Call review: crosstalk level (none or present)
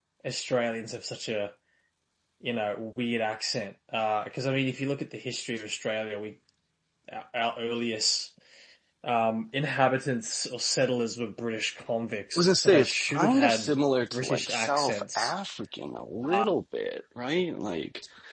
present